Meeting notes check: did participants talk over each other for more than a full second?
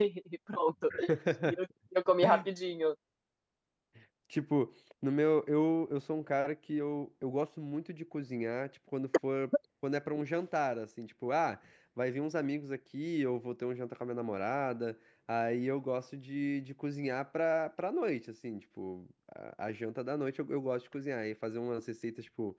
No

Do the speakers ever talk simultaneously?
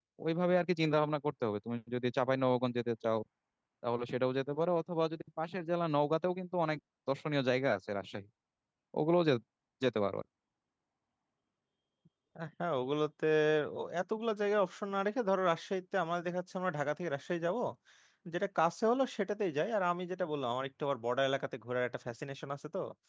No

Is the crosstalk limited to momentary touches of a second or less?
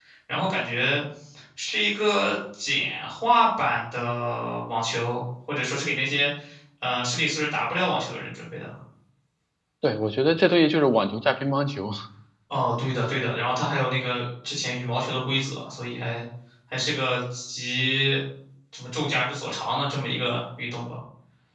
Yes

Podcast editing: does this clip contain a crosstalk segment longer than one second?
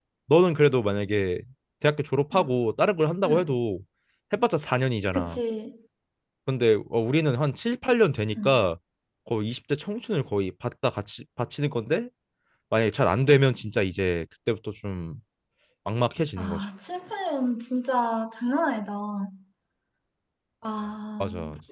No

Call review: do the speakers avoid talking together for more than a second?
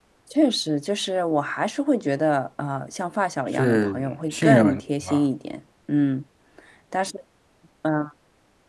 No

